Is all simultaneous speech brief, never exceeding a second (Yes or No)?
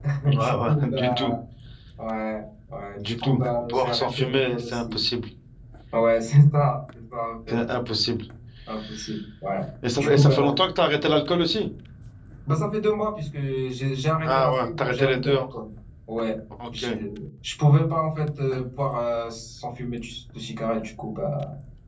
No